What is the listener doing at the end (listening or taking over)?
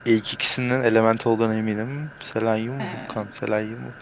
listening